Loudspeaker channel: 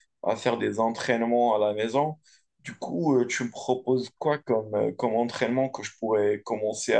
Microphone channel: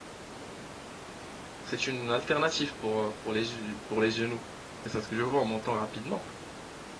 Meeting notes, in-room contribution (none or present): present